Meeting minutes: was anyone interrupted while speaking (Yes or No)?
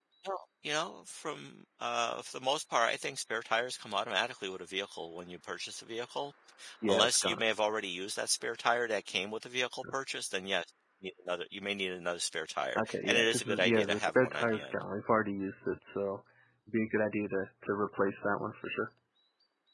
Yes